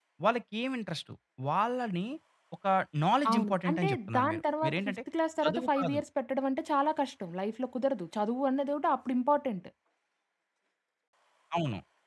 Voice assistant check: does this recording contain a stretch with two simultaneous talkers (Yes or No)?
Yes